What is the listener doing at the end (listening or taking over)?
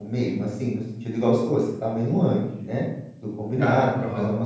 listening